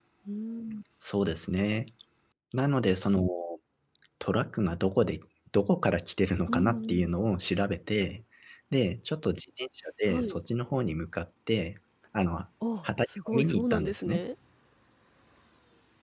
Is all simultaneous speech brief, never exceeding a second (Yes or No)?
No